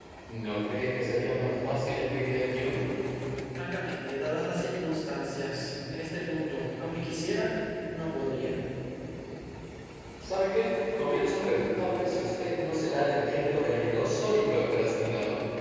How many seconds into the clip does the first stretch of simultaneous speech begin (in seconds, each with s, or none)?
none